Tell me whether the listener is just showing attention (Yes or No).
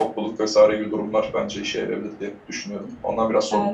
No